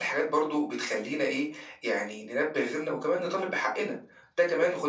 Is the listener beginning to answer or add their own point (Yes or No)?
No